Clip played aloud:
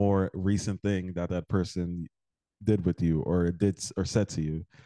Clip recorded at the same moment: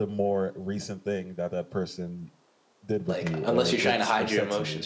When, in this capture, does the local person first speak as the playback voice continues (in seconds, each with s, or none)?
3.1 s